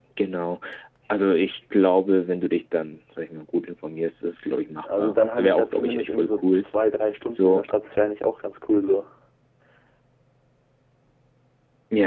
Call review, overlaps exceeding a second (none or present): present